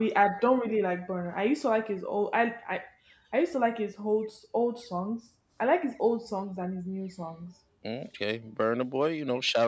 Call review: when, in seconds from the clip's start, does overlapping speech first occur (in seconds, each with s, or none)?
none